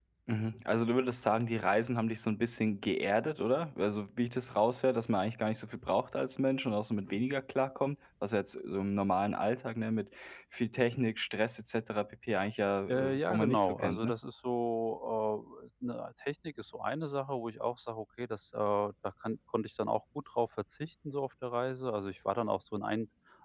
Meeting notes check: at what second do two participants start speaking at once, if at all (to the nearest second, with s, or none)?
13 s